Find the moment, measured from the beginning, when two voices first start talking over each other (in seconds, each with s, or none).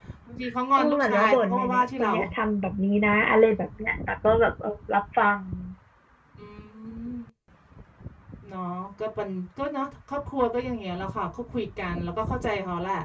0.8 s